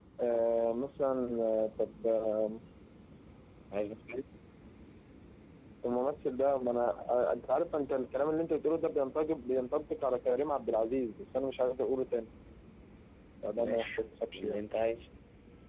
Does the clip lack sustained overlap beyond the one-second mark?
Yes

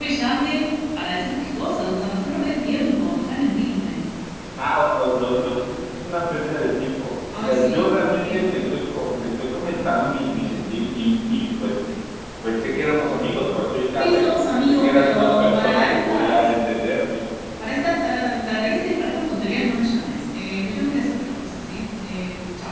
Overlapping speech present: Yes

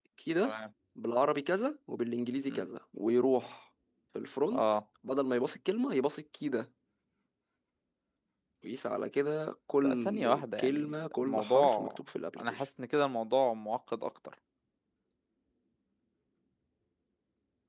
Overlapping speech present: Yes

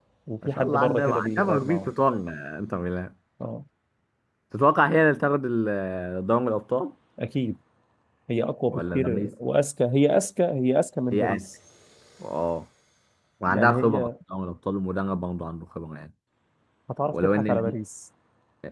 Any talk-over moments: Yes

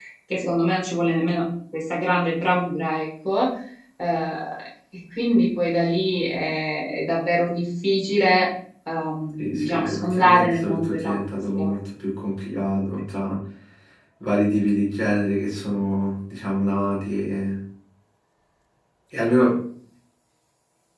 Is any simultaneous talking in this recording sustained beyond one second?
Yes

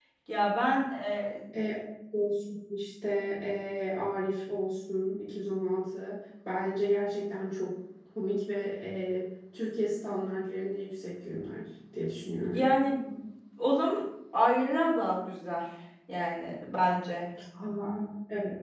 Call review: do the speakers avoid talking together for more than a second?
Yes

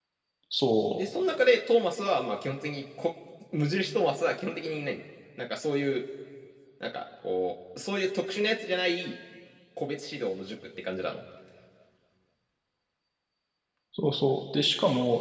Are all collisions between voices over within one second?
Yes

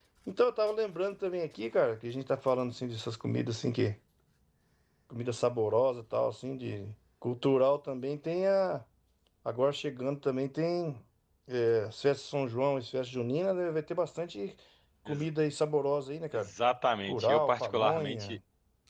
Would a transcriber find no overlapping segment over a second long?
No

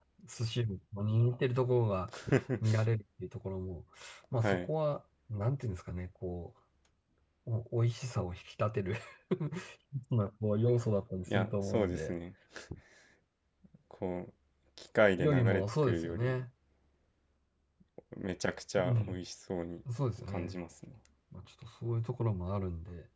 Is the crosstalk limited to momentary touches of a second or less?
No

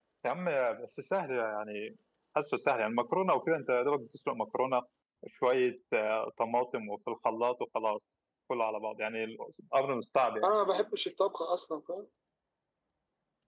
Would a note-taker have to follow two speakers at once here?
No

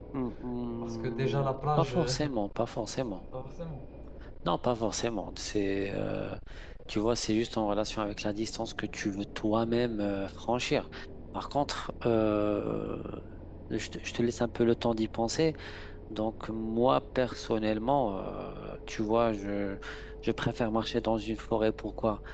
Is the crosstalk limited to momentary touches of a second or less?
No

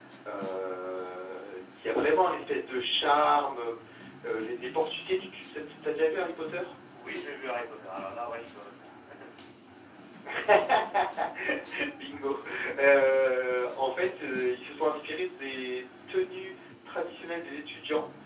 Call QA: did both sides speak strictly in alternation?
Yes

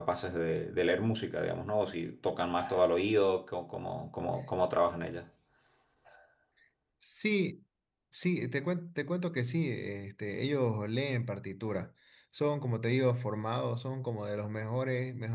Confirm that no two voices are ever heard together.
Yes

